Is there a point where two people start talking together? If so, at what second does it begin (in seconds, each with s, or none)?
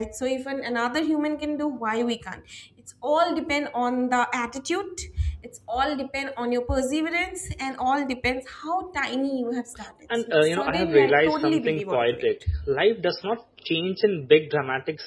10.1 s